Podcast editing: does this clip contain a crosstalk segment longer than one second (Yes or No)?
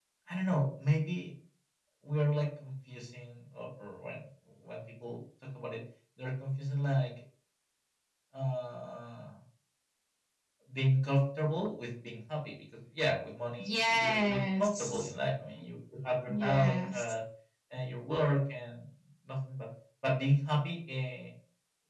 Yes